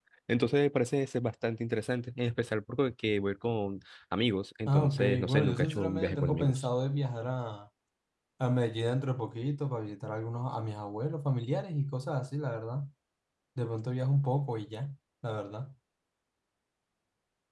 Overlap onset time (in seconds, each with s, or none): 4.7 s